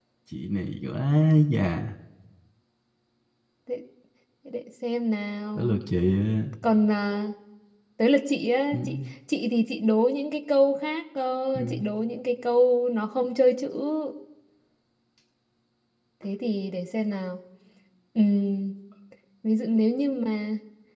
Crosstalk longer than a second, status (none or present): none